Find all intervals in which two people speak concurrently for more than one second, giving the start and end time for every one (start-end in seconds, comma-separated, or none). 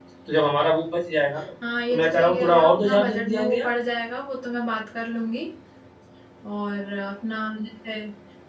1.9-3.7